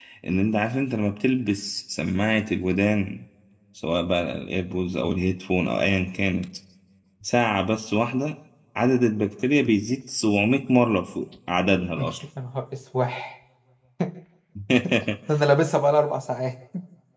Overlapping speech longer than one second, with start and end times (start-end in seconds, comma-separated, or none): none